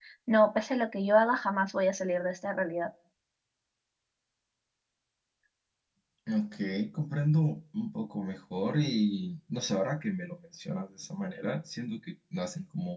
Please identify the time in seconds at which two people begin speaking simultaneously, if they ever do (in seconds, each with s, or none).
none